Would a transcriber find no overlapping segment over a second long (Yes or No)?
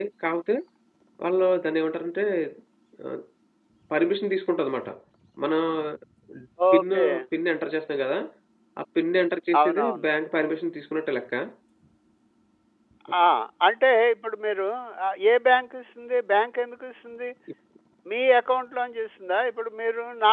Yes